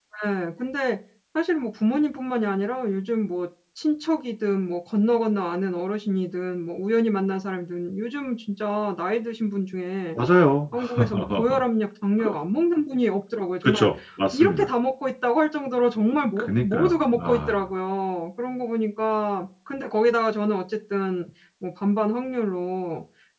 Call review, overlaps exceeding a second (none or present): present